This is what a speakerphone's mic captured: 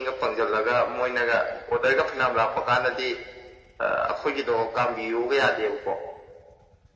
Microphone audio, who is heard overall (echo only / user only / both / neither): echo only